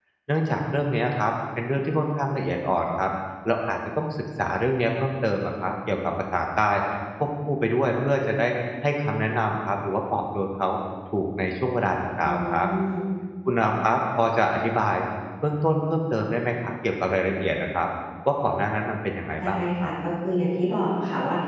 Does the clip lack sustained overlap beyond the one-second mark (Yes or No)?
Yes